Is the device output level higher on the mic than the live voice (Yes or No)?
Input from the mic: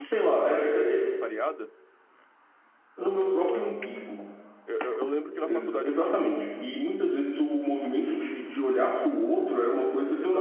Yes